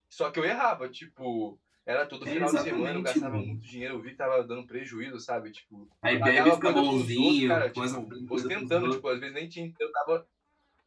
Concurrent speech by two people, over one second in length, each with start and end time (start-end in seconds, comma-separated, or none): 2.2-3.6, 6.2-9.2